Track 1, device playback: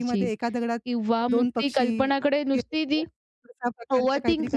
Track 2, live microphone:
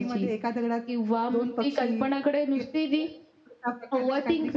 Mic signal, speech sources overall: echo only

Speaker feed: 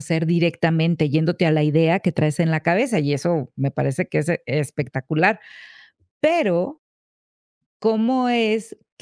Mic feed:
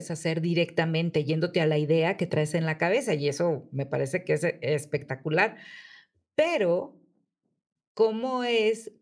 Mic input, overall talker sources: echo only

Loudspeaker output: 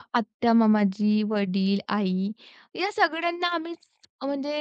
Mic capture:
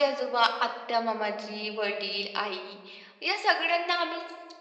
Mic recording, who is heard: echo only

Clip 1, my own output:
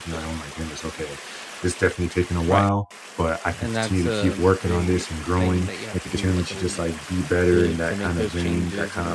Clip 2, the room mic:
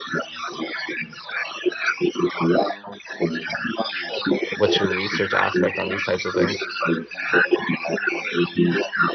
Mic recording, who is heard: both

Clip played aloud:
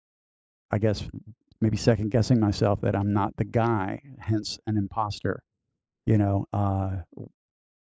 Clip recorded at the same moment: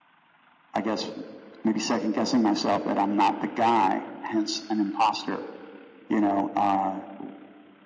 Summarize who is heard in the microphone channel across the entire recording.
echo only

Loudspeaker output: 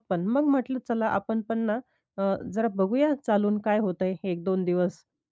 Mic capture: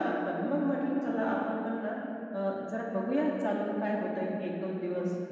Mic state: echo only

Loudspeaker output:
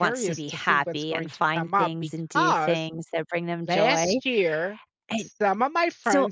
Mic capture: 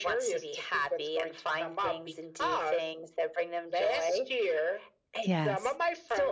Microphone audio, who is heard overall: both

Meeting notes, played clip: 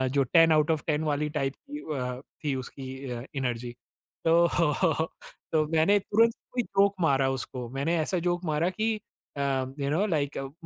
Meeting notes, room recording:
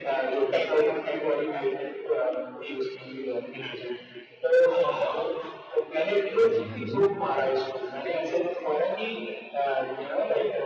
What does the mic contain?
both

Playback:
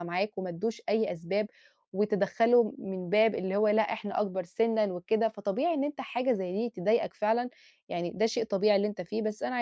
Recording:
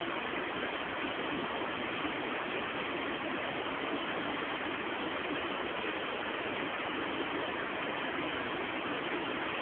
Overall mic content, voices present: neither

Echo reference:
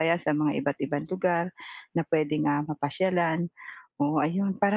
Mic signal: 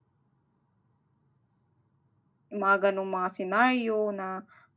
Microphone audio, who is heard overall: user only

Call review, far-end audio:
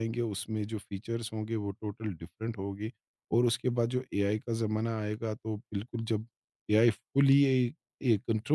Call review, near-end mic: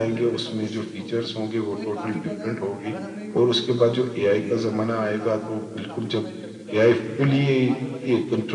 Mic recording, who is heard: both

